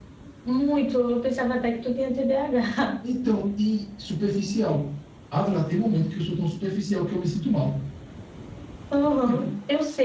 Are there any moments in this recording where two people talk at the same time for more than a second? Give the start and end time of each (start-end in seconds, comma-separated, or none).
none